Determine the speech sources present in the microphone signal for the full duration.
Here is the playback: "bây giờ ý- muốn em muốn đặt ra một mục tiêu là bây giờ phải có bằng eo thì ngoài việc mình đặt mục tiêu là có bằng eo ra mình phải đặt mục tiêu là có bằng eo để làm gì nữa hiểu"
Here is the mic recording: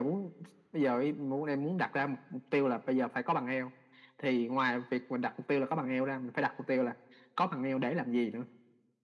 echo only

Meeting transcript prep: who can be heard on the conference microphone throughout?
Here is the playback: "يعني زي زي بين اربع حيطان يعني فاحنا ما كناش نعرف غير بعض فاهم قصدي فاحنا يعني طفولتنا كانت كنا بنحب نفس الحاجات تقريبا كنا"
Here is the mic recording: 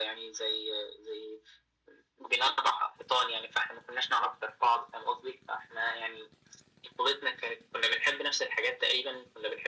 echo only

